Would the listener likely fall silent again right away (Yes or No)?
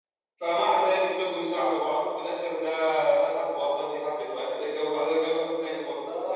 No